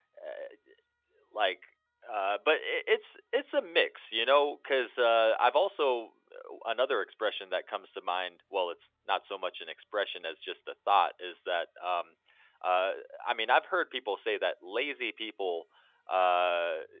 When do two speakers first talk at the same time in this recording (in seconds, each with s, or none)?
none